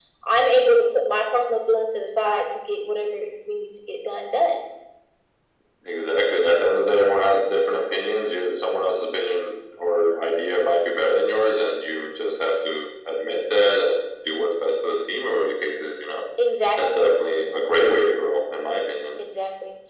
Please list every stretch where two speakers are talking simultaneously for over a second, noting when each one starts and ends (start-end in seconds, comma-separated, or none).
none